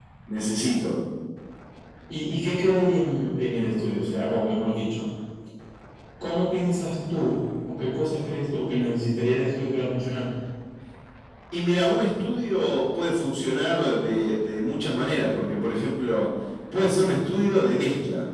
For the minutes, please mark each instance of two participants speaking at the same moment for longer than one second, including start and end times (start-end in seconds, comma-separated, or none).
none